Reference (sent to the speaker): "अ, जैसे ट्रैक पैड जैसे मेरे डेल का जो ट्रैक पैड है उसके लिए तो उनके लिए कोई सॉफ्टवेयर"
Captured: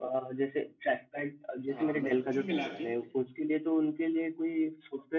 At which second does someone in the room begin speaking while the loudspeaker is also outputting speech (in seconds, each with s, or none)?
1.7 s